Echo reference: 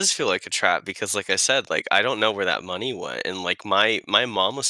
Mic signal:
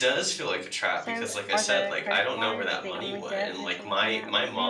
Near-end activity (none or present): present